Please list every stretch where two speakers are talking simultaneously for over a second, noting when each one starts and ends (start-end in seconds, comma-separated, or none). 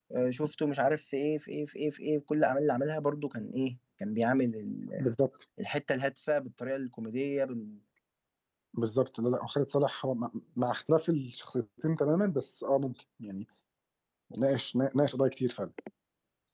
none